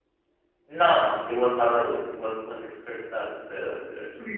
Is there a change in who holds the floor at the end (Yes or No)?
No